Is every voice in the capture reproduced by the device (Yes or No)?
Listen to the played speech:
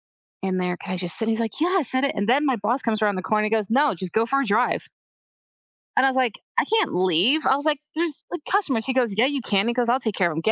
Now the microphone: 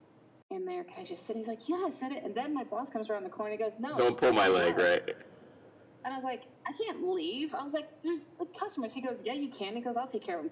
No